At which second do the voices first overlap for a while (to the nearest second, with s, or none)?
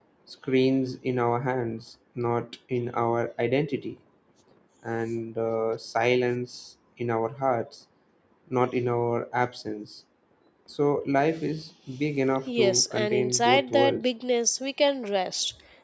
12 s